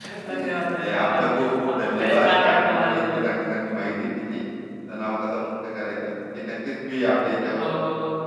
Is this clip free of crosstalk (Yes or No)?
No